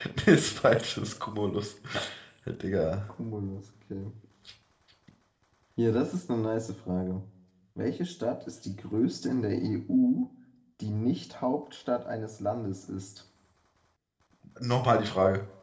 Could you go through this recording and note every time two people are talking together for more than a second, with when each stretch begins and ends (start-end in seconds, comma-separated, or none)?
none